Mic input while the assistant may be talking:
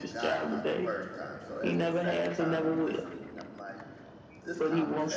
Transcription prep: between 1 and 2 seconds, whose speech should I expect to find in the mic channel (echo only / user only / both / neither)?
both